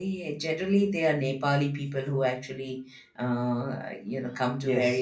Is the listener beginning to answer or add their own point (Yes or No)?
Yes